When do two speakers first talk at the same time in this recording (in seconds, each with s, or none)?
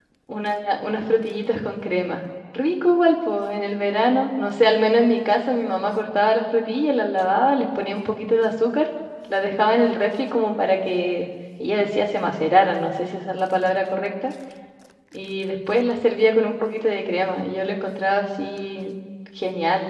none